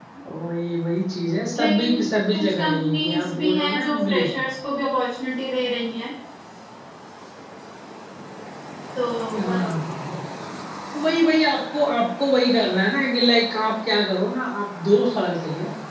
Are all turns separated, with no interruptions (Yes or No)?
No